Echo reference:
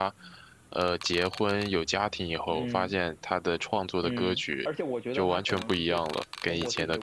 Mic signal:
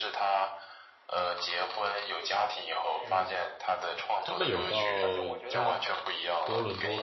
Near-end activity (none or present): present